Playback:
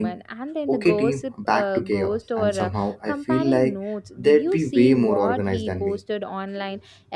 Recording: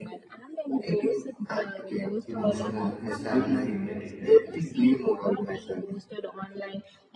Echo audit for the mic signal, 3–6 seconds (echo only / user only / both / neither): both